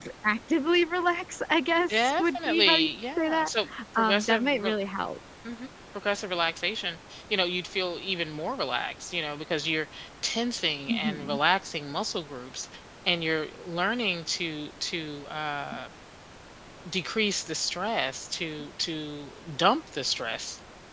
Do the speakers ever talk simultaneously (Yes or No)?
Yes